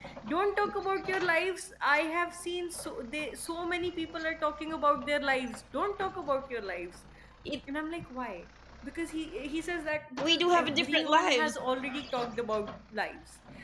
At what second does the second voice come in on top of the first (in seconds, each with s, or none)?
10.2 s